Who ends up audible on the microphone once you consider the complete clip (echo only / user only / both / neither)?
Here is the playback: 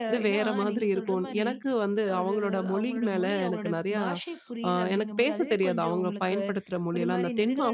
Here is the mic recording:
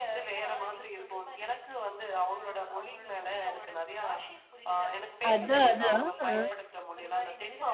both